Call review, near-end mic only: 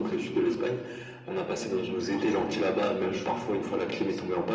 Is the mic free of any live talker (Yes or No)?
Yes